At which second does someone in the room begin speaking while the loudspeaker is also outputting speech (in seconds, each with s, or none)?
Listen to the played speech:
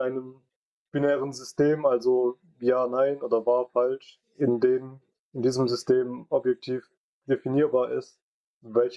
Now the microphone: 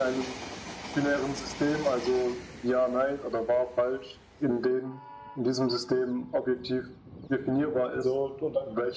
8.0 s